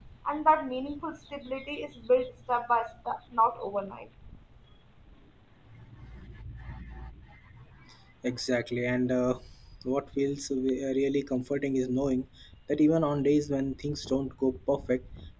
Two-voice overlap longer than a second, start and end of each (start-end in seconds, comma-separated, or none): none